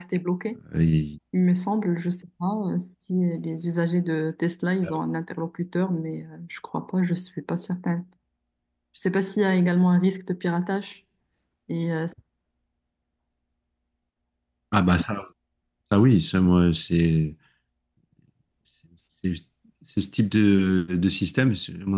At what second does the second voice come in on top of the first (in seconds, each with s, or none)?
none